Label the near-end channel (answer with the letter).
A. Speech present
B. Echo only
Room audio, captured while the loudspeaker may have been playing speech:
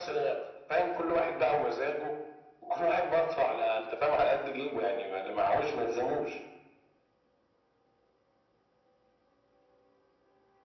B